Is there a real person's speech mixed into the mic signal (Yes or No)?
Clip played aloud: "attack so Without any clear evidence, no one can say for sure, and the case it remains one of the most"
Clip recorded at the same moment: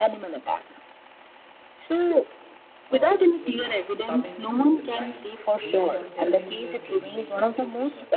Yes